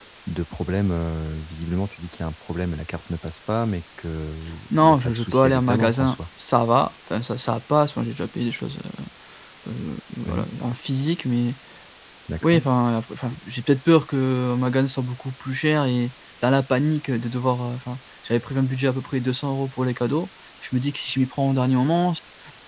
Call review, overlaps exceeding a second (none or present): present